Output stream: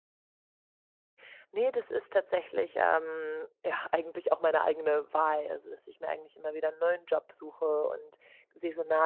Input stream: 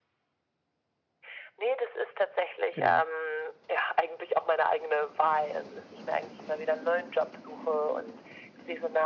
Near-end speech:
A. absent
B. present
B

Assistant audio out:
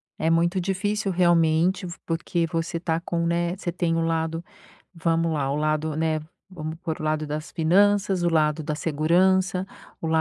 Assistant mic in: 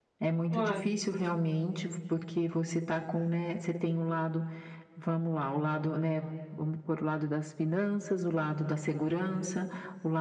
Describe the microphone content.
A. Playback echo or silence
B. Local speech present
B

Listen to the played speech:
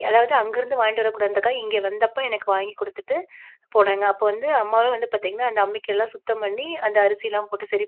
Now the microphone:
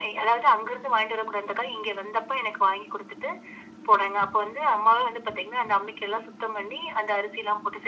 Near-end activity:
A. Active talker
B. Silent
B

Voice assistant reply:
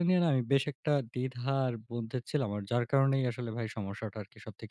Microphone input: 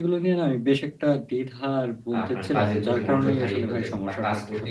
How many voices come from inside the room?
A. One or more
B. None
A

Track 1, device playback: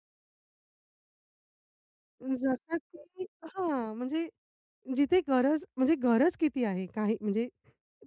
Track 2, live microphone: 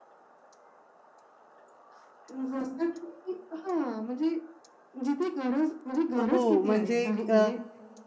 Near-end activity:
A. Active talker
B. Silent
A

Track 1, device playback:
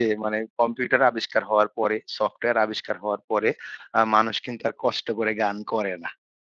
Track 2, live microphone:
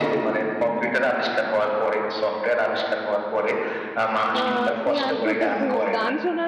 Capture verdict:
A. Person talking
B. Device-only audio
A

